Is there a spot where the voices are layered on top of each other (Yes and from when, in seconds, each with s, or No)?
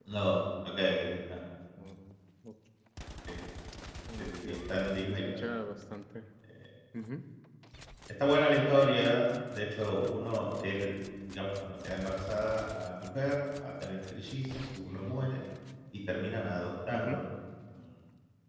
Yes, from 4.2 s